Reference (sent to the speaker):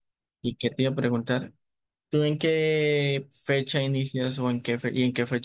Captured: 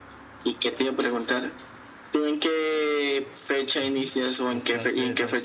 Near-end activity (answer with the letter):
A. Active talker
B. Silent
A